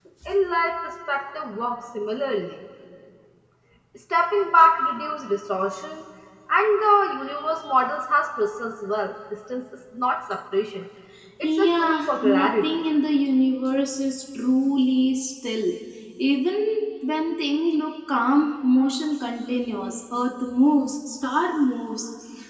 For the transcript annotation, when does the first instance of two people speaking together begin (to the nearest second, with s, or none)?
11 s